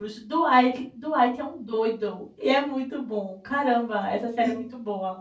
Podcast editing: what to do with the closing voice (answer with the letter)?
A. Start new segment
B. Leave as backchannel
A